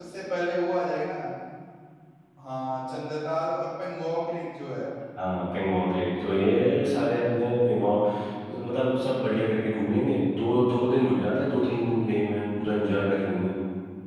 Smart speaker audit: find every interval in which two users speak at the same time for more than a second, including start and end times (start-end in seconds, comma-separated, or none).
none